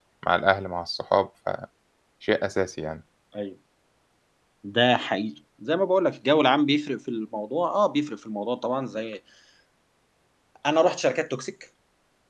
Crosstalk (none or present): none